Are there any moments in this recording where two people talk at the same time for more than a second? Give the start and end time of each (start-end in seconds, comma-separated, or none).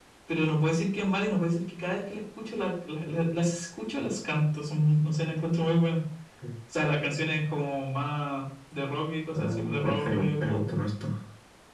9.3-10.6